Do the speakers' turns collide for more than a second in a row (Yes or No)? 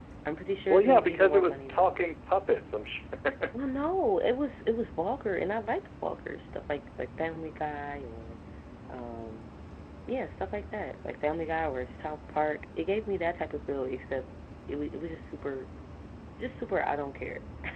Yes